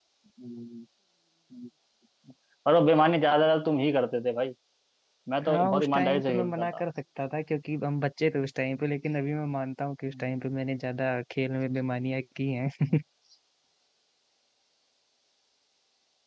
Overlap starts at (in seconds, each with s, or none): 5.5 s